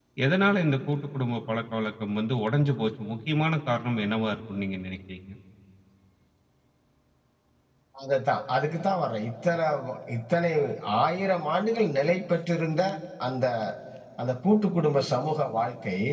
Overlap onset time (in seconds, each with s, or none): none